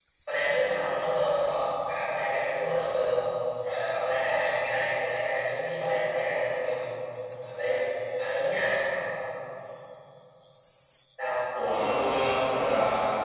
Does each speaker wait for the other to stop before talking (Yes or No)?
Yes